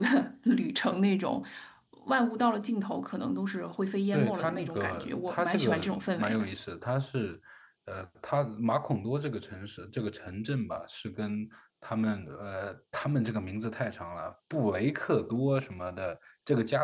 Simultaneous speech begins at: 4 s

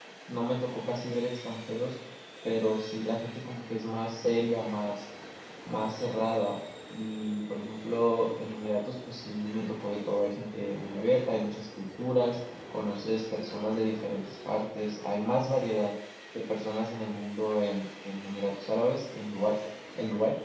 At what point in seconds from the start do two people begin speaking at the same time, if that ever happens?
none

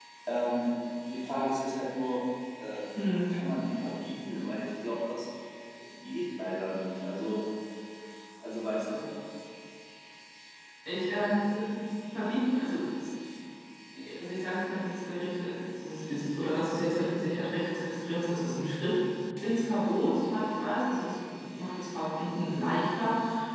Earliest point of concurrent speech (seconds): none

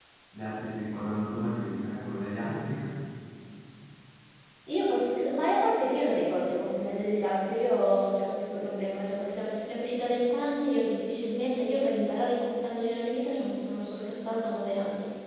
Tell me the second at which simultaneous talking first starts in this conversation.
none

